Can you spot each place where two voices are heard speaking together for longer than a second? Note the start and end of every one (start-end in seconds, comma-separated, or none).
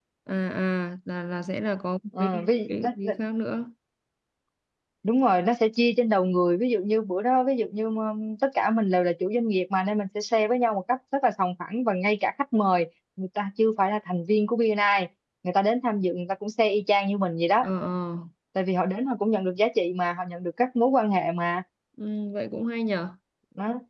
none